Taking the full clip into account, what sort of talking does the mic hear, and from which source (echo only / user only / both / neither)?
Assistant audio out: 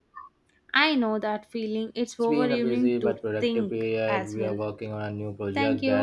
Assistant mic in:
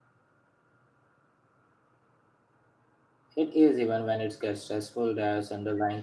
user only